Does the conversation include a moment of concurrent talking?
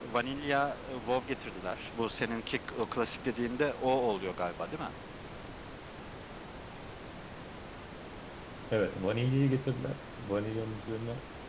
No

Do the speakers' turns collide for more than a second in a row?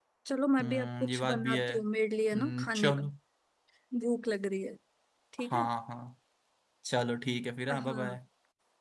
Yes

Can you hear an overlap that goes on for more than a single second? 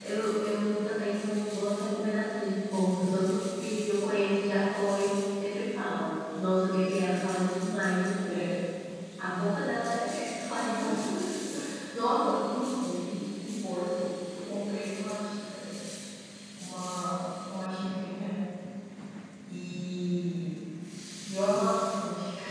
No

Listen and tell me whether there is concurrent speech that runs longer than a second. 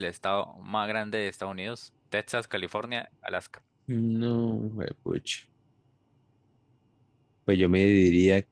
No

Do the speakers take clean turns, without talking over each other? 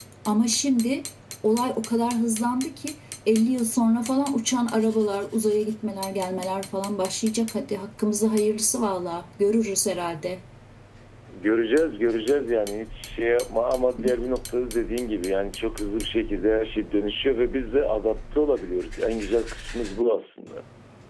Yes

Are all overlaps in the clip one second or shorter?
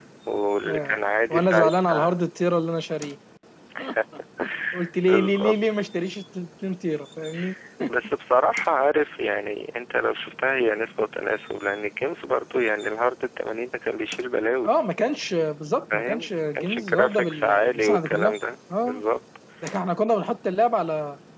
No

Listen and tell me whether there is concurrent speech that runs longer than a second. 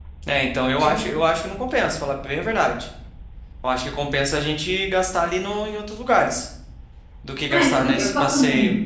Yes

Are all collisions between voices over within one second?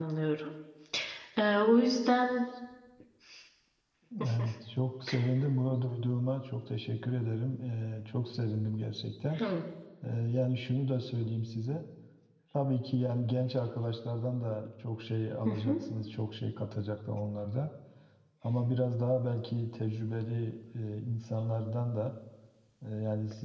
Yes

